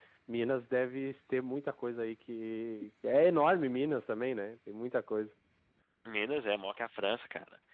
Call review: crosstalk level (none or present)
none